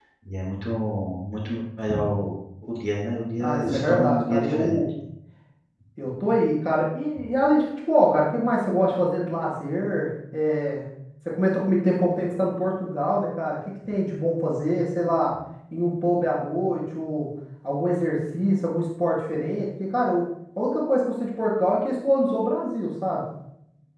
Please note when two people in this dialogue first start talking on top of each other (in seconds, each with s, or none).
3.4 s